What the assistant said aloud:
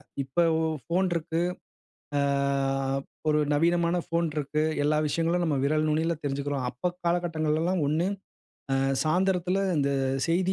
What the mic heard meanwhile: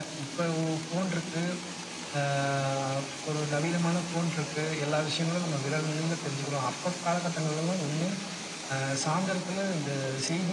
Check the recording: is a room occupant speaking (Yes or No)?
No